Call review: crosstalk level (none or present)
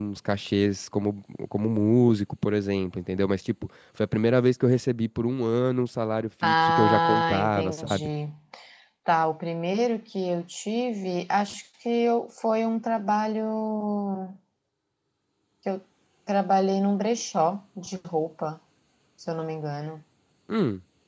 present